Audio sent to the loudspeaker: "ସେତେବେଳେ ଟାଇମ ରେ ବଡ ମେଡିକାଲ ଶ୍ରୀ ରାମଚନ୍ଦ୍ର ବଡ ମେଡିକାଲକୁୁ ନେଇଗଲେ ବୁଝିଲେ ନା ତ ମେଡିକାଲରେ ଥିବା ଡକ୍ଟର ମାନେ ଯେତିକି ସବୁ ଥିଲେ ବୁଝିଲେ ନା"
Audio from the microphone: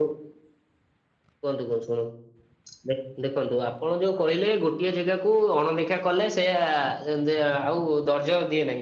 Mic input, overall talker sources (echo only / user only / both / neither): user only